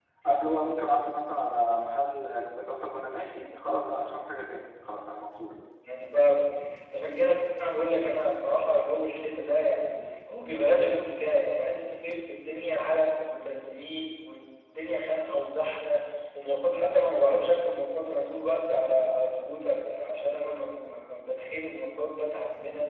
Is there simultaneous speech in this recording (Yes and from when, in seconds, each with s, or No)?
No